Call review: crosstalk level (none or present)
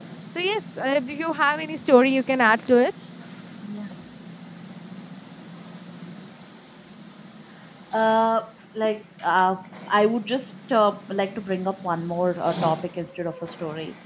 none